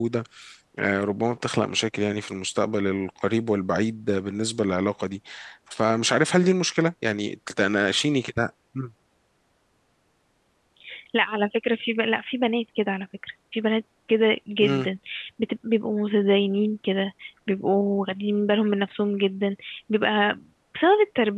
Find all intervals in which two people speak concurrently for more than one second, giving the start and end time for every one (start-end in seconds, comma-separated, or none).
none